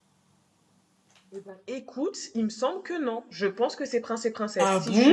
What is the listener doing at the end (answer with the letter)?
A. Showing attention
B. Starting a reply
A